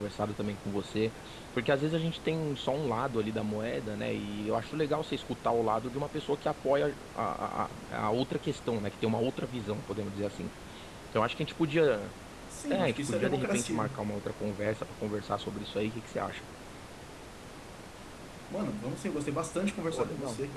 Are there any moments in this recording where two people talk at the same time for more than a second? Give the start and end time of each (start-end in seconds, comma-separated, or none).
12.7-14.0